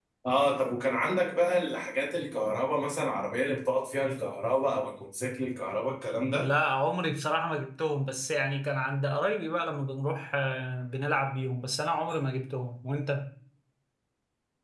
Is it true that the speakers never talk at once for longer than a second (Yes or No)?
Yes